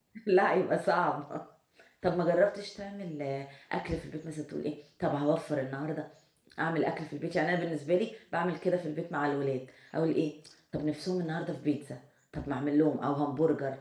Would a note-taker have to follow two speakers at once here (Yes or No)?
No